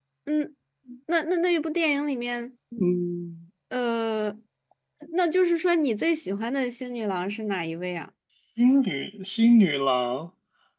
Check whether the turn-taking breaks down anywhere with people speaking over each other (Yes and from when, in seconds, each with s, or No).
No